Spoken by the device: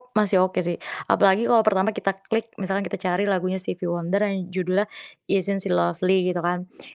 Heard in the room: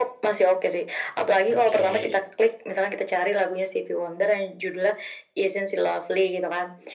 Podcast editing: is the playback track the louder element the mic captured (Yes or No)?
Yes